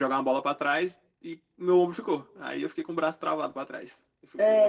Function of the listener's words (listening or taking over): taking over